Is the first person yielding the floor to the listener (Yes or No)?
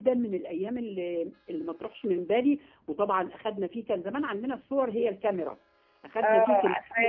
Yes